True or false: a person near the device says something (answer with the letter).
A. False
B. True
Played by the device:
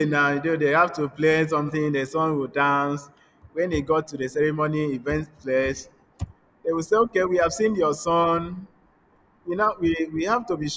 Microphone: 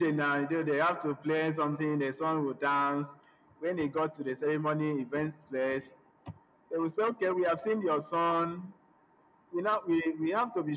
A